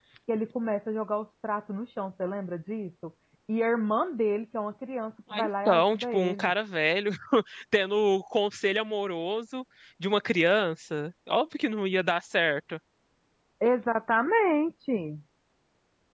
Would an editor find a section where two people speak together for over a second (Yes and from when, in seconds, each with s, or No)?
Yes, from 5.3 s